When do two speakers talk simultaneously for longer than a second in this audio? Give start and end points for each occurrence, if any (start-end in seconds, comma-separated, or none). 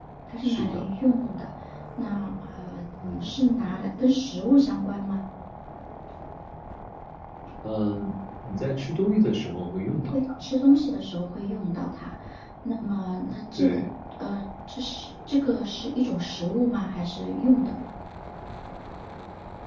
none